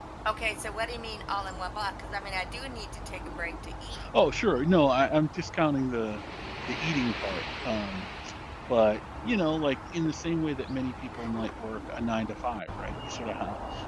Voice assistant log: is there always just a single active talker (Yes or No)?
Yes